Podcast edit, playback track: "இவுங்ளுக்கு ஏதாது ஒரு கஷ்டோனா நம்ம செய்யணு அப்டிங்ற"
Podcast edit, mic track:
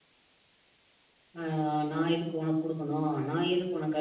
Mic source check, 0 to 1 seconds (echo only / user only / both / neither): neither